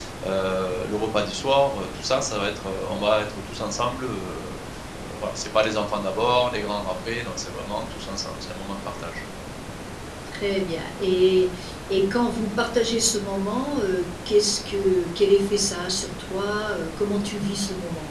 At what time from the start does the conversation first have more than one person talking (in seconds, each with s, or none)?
none